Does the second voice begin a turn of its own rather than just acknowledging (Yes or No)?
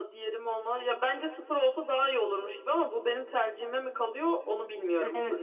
Yes